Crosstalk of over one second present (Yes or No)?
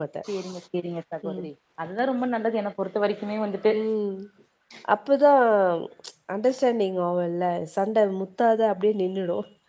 No